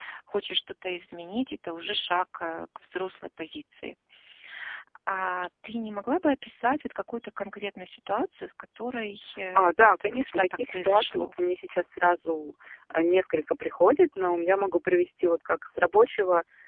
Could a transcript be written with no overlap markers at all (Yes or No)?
No